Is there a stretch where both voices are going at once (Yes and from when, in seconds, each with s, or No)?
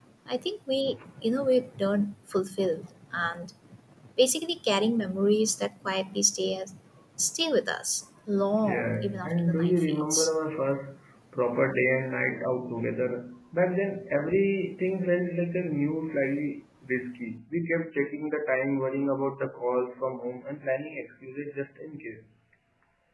Yes, from 8.6 s